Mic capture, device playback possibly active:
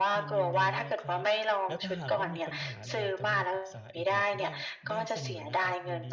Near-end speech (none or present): present